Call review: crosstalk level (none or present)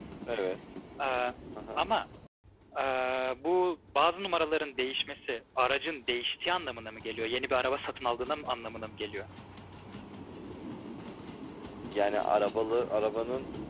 none